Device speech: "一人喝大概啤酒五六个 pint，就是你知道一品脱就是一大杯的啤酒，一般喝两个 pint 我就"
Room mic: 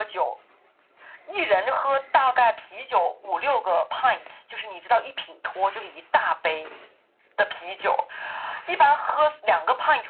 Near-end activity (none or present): none